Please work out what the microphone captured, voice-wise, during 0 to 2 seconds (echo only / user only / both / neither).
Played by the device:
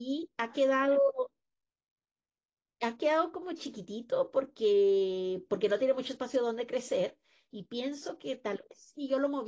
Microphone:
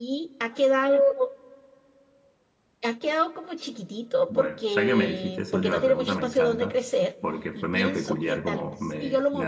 echo only